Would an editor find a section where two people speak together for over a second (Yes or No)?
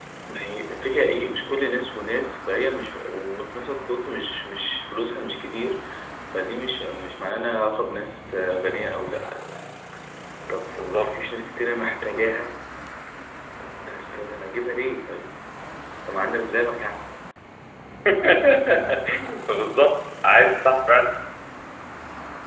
No